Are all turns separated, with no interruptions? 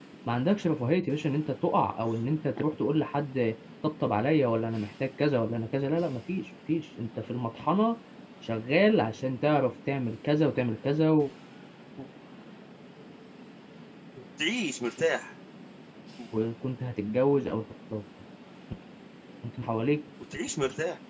Yes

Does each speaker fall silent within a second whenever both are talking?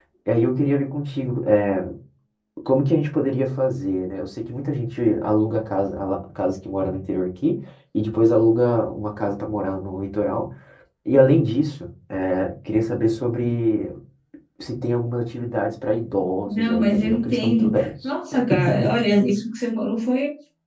No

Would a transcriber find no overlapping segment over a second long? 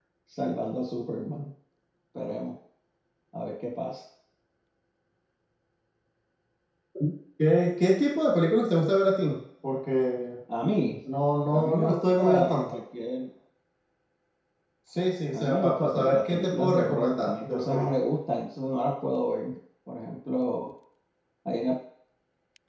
No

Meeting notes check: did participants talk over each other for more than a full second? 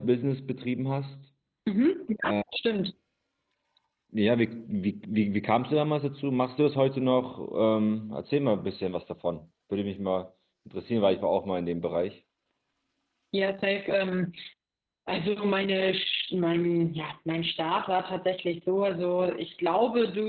No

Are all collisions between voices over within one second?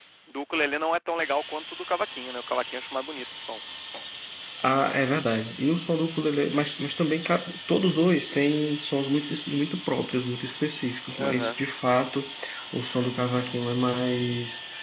Yes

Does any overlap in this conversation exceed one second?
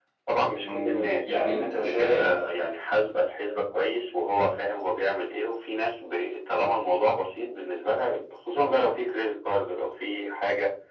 Yes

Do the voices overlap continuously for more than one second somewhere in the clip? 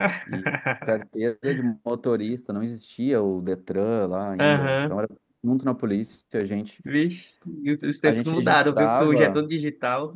Yes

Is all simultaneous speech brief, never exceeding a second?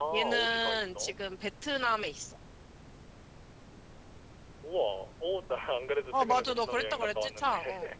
No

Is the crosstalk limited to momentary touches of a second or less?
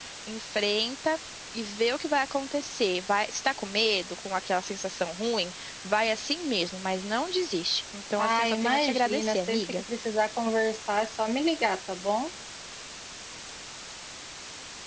No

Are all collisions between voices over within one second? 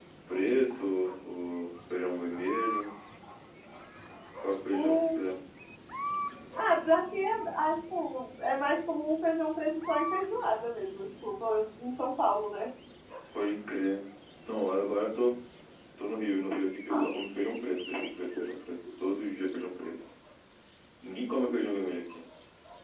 Yes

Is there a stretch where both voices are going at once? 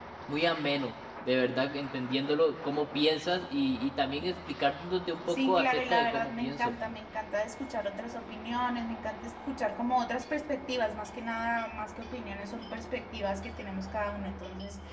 Yes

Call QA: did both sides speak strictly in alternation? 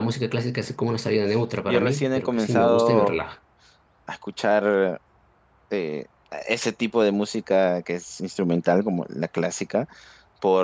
No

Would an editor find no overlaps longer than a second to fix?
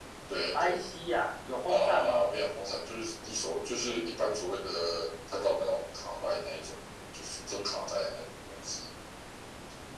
Yes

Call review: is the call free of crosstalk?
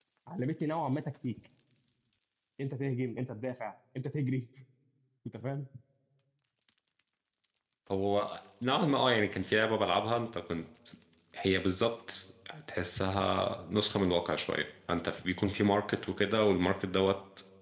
Yes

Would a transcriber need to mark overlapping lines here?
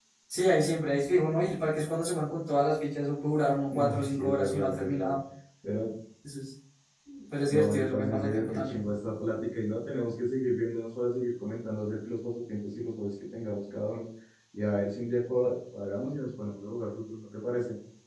Yes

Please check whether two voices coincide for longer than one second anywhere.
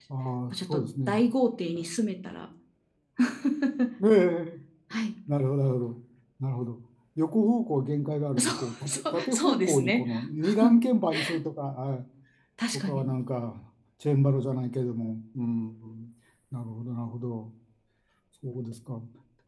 Yes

